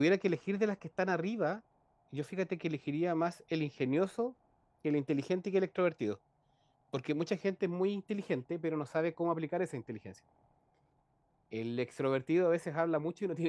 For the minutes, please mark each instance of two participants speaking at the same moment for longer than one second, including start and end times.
none

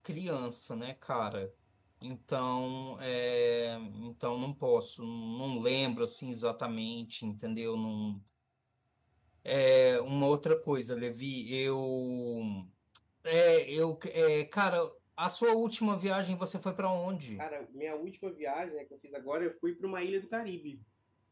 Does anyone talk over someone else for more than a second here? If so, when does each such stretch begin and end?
none

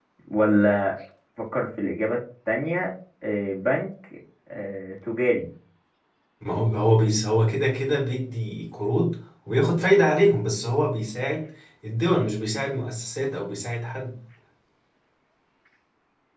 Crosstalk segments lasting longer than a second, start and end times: none

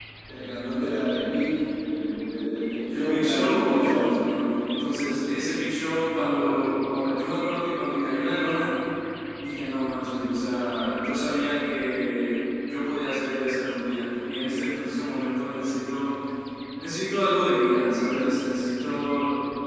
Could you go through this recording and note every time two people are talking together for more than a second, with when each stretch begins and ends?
2.9-4.1

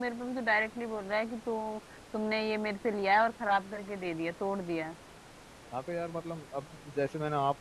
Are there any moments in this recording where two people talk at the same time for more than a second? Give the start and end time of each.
none

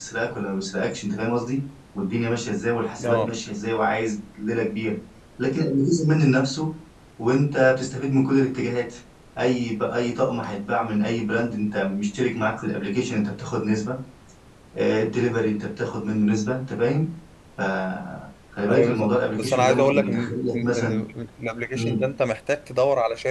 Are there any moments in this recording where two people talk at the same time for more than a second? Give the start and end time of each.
18.7-20.7

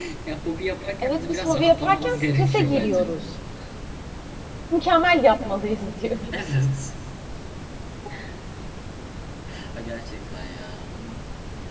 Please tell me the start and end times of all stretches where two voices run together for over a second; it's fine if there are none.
1.0-3.1

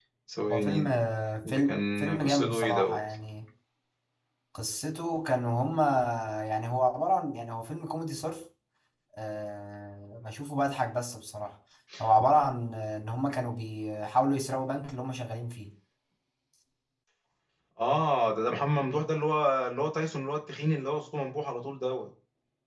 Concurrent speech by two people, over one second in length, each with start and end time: 1.4-3.0

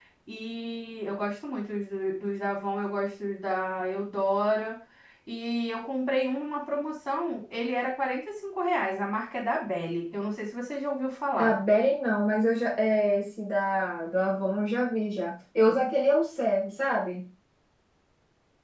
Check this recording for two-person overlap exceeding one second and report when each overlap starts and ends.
none

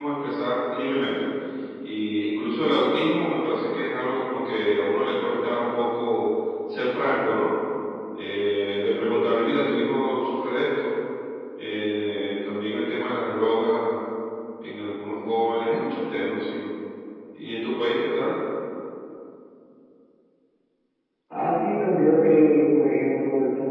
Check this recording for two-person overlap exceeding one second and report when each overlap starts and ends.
none

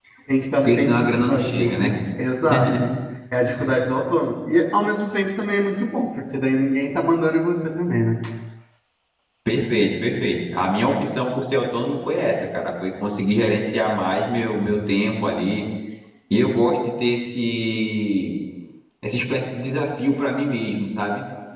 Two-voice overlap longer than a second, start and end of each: 0.6-1.9

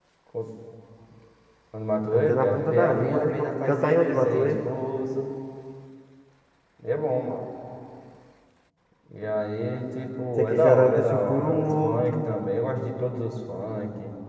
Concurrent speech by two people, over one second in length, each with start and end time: 2.1-4.5, 10.4-12.2

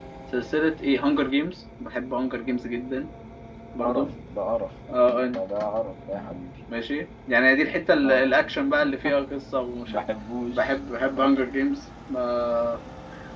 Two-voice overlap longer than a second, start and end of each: none

